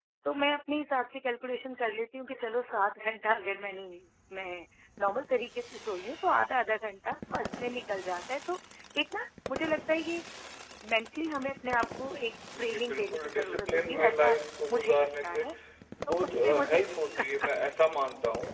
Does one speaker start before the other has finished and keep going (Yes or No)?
Yes